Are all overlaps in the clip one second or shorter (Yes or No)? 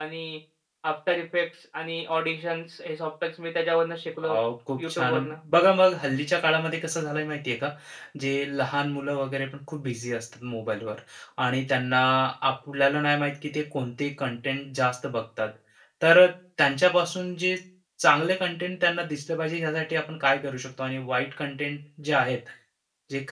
Yes